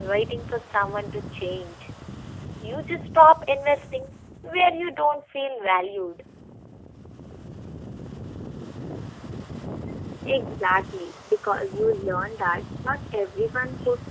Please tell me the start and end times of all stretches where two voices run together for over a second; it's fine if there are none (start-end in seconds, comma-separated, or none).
none